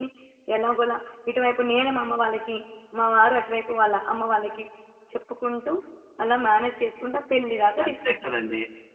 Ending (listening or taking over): taking over